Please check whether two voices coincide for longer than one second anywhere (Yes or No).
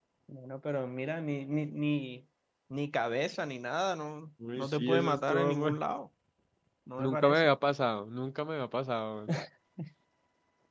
Yes